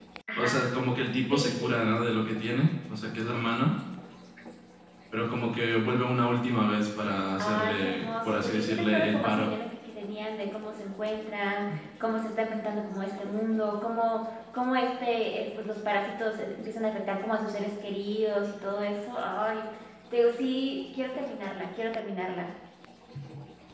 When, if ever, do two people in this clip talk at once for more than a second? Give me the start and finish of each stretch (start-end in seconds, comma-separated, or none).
7.4-9.5